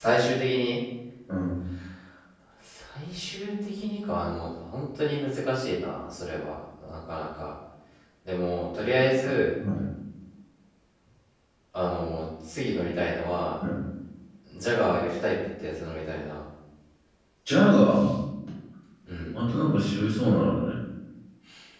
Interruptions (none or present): none